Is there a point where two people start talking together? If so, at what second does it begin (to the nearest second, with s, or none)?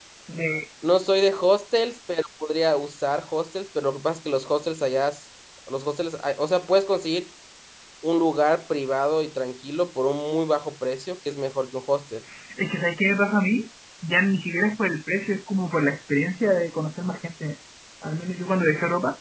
none